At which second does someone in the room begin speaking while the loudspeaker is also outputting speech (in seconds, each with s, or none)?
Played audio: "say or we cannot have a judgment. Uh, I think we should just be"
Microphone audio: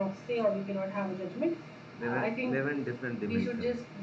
2.0 s